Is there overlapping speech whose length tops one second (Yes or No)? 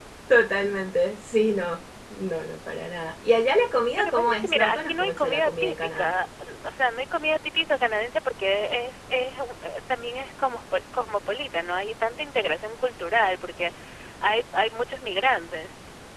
Yes